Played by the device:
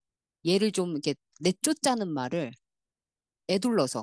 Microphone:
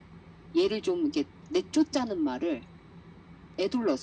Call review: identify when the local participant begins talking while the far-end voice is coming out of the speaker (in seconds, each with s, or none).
none